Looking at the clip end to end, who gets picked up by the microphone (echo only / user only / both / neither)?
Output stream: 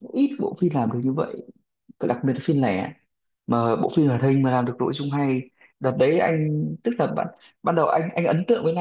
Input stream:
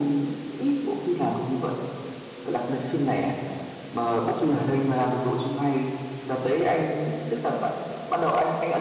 echo only